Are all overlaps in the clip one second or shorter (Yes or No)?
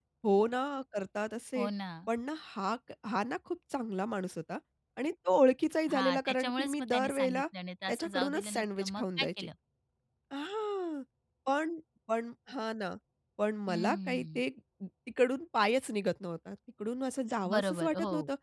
No